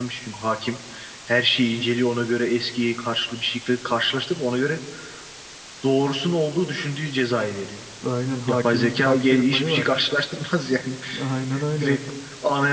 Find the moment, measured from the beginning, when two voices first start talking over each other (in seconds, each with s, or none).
8.5 s